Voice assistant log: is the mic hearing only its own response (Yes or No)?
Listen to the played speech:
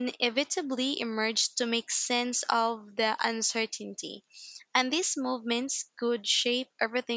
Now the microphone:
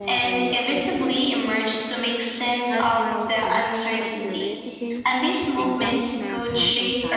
No